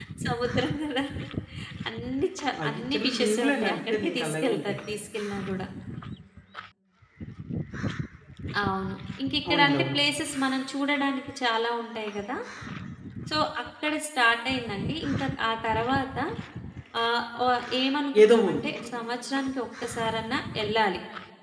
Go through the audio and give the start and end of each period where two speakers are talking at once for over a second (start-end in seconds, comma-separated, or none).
2.6-4.7